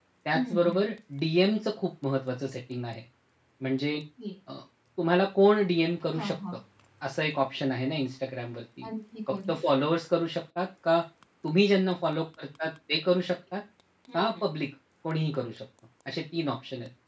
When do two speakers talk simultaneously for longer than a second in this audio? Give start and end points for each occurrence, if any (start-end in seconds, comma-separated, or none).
none